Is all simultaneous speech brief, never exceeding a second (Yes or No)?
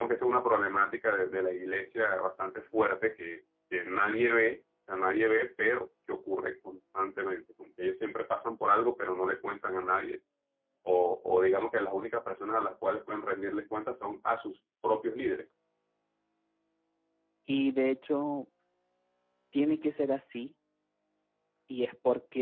Yes